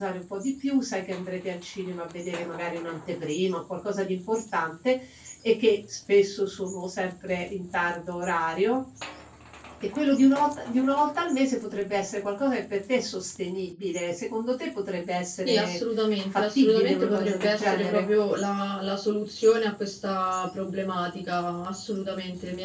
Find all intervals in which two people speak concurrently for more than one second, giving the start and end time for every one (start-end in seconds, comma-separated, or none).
16.4-18.1